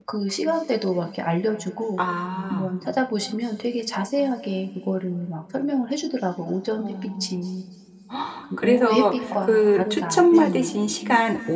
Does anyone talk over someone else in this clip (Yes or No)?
Yes